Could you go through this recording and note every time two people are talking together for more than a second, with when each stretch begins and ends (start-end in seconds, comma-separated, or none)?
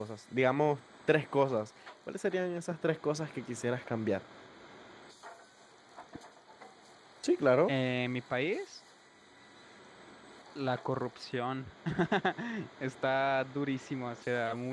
none